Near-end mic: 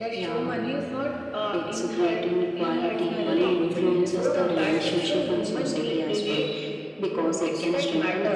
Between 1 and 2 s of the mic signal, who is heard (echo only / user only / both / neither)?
echo only